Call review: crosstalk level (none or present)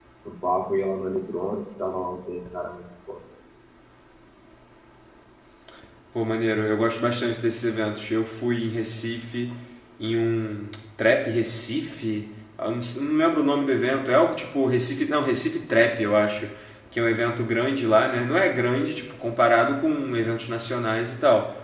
none